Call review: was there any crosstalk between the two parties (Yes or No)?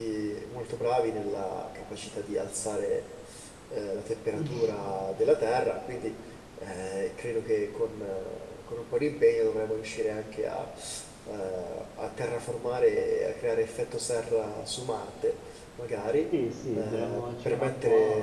Yes